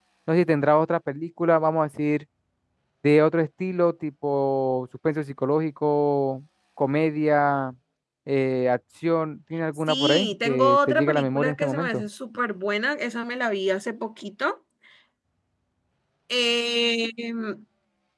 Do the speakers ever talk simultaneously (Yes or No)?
Yes